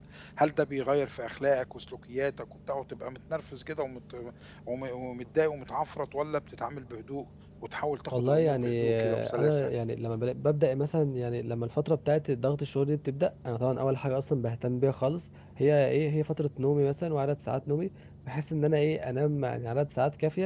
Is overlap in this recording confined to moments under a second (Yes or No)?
No